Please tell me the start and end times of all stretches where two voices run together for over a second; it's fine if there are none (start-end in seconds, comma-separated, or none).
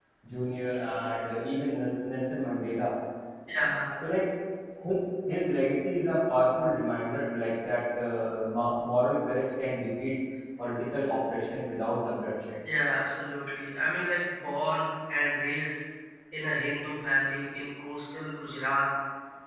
none